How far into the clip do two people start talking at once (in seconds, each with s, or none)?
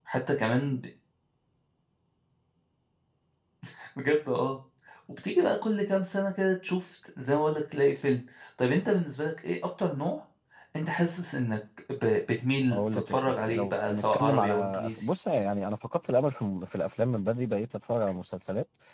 12.7 s